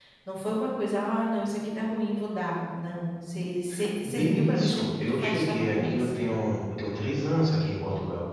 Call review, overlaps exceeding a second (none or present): present